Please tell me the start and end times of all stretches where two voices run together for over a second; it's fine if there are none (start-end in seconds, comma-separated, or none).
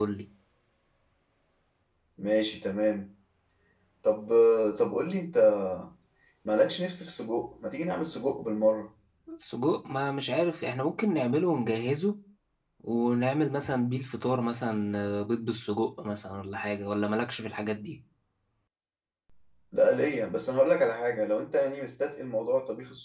none